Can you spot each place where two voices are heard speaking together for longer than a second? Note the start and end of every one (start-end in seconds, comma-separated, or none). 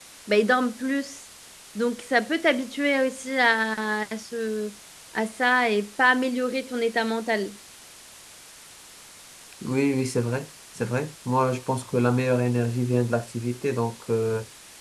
none